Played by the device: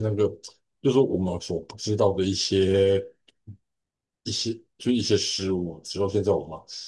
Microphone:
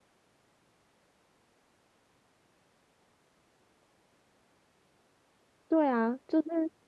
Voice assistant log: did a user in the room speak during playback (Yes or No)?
Yes